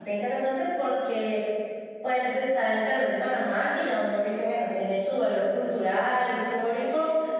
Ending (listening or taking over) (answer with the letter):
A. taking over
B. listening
B